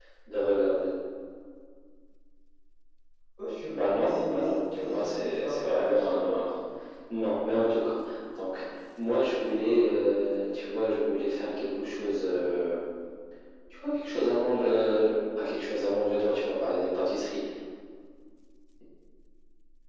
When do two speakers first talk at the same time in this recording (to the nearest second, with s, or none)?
4 s